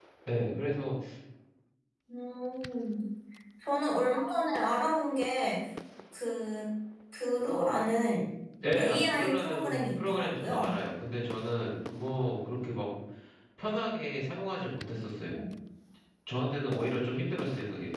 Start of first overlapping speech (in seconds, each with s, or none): 8.8 s